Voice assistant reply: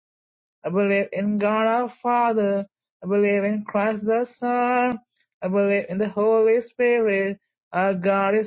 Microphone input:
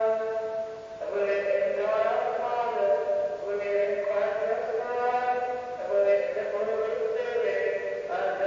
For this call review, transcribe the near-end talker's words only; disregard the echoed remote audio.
none

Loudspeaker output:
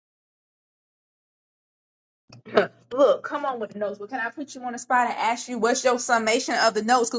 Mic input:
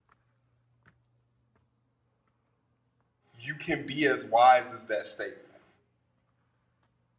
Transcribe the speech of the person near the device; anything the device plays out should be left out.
you can be as wise as that statement

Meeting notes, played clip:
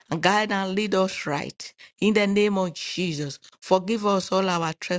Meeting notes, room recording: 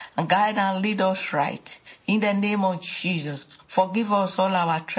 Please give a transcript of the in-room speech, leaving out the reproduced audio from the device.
none

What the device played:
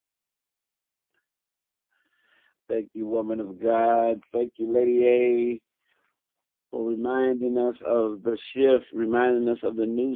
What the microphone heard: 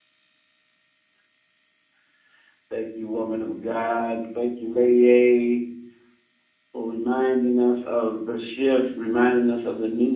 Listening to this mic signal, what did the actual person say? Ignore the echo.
none

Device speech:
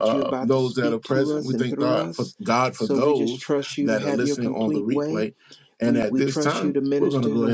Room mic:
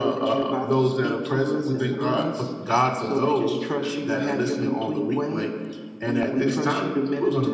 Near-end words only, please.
none

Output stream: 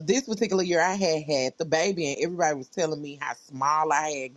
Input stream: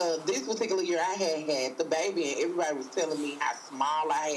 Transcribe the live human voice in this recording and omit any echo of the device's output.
none

